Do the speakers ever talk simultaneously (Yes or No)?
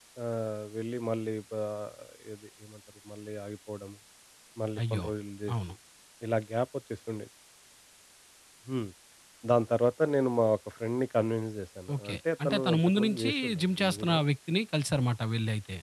Yes